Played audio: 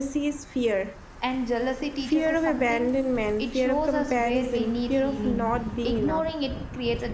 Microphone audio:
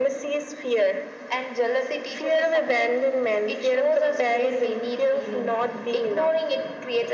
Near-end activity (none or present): none